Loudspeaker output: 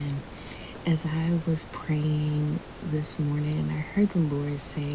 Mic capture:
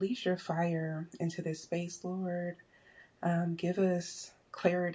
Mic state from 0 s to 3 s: user only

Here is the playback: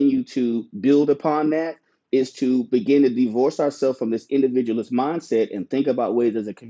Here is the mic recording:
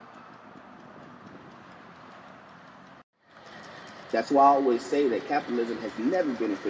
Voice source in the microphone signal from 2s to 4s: neither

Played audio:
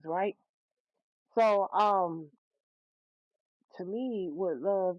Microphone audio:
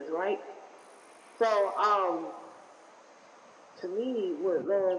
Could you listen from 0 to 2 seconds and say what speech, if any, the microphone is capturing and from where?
echo only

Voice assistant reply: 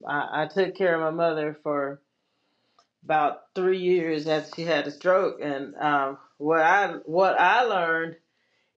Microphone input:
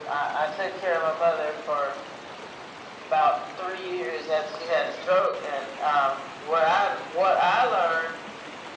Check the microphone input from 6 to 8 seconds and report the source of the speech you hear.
echo only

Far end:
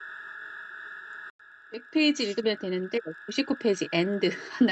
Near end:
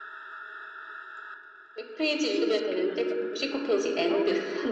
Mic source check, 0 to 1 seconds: neither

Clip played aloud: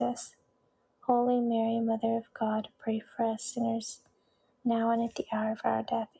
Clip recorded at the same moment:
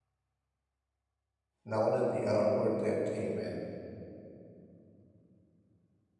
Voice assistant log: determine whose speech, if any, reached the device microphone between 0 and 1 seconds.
neither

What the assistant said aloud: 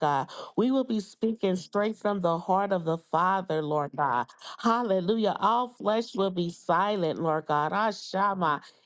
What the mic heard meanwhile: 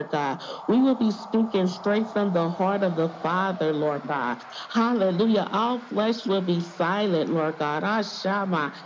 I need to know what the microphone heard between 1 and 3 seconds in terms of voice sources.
echo only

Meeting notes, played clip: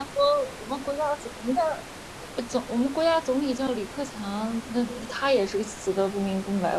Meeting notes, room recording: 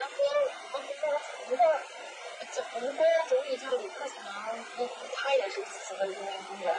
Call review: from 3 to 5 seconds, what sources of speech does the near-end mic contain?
echo only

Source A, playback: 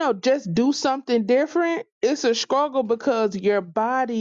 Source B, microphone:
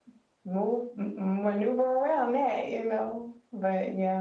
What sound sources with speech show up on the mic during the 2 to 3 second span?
user only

